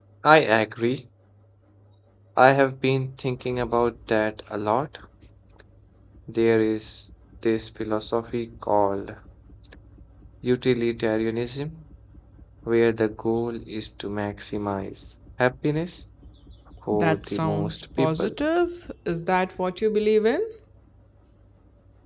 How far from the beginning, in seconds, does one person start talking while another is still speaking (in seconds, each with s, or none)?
16.9 s